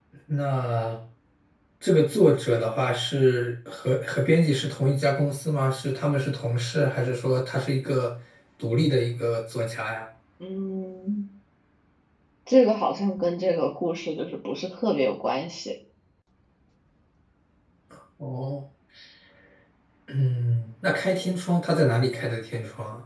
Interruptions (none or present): none